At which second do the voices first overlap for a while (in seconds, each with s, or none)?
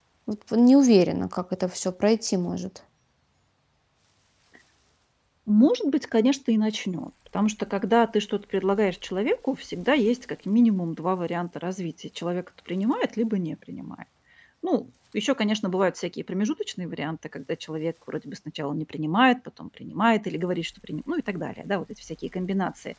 none